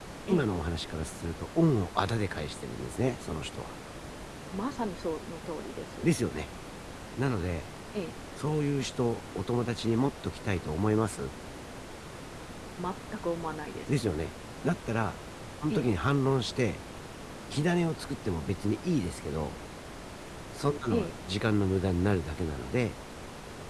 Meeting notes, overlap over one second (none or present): none